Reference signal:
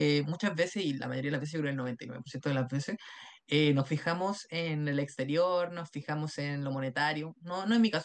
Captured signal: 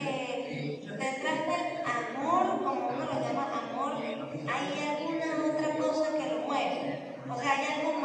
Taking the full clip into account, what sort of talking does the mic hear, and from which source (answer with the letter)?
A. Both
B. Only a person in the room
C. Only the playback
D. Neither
A